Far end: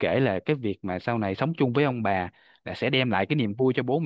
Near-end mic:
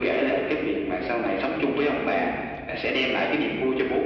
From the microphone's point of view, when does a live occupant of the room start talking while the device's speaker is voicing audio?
2.1 s

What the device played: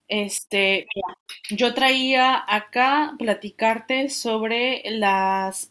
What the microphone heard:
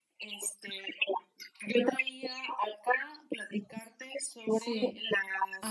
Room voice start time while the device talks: 4.5 s

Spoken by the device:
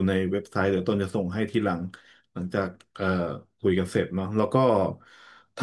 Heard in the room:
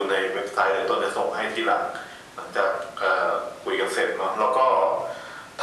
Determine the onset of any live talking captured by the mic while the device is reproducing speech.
none

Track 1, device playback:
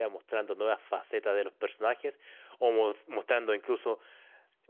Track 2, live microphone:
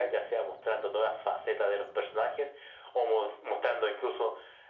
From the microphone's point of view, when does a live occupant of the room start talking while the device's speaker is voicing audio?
none

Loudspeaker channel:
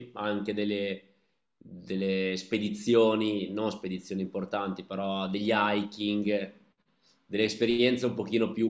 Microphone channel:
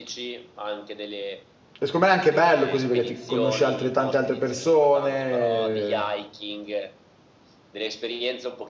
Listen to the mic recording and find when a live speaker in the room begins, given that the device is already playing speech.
1.8 s

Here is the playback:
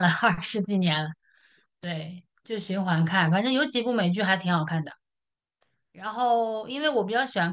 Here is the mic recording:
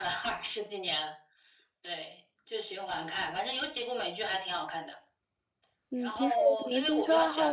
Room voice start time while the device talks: 5.9 s

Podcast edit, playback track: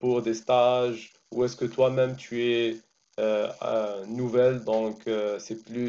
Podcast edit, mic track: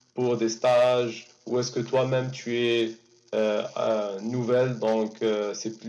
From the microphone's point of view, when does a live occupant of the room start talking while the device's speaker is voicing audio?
none

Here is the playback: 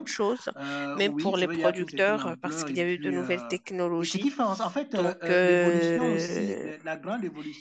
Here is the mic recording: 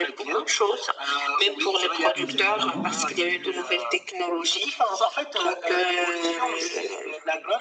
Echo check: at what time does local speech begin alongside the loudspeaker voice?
2.1 s

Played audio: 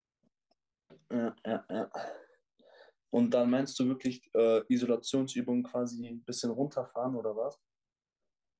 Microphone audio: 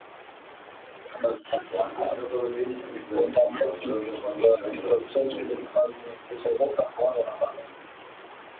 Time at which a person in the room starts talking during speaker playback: 1.6 s

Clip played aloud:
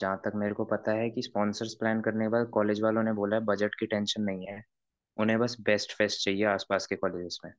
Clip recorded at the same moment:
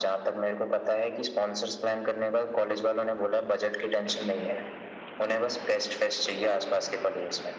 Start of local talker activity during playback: none

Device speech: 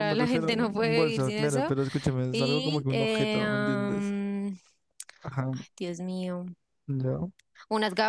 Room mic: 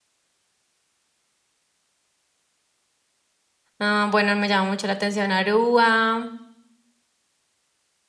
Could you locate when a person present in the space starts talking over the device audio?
3.8 s

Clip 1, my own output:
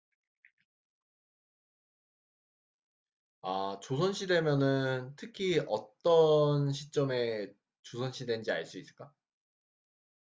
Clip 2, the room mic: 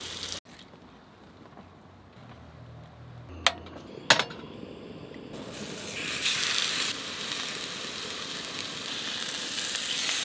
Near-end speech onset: none

